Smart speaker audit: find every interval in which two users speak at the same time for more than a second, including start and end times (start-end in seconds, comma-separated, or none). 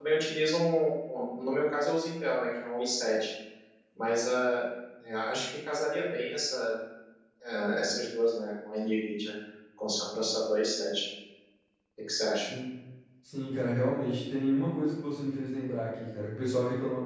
none